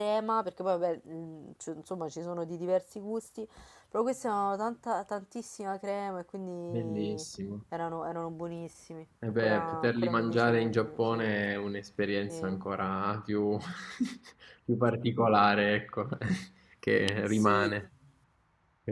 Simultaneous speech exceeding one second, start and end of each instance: 9.4-11.3

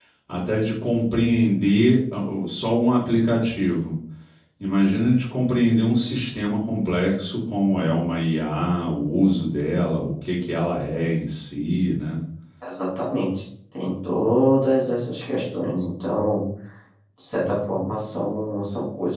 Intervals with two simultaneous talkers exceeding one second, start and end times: none

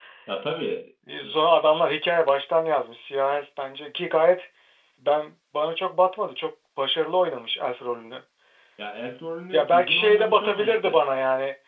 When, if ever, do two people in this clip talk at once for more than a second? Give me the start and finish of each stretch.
9.5-11.0

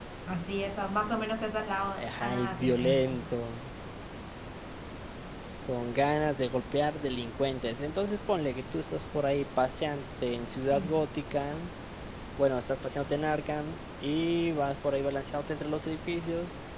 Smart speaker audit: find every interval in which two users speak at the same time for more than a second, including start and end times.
2.0-3.2

